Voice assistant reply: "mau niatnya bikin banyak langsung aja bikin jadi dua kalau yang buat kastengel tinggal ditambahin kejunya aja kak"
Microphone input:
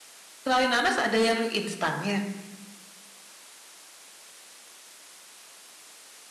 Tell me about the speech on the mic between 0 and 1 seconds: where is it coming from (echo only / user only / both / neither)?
user only